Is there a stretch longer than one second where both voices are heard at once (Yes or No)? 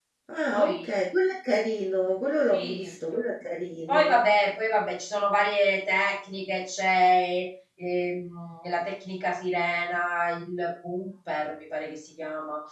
No